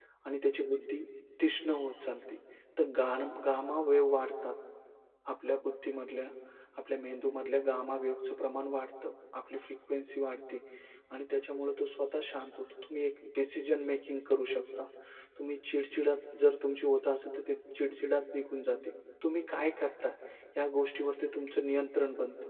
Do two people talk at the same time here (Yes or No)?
No